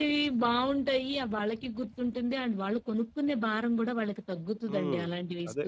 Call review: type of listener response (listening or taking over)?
taking over